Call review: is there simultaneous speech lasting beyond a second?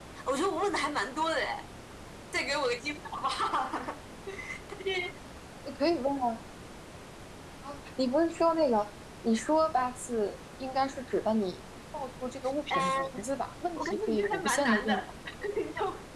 Yes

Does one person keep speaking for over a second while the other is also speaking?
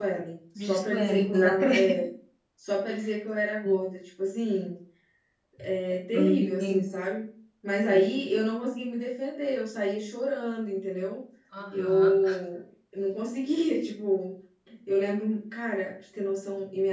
Yes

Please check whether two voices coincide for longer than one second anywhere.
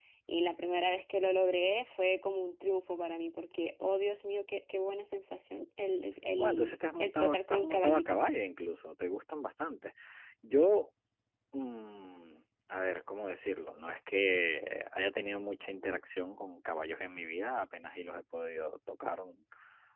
Yes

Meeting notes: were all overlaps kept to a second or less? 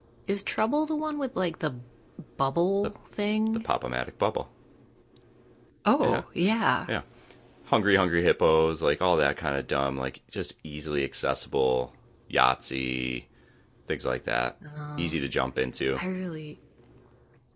Yes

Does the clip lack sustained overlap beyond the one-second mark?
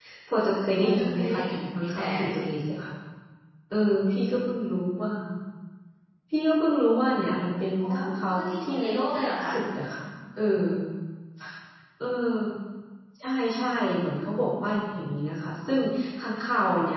No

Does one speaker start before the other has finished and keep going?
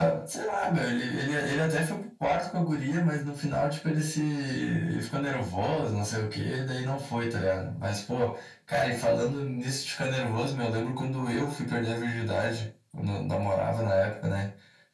No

